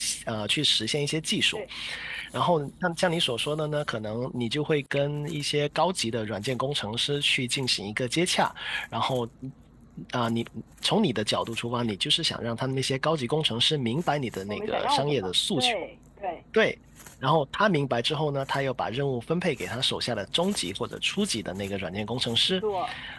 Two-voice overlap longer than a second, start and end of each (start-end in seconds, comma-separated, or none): 14.5-15.7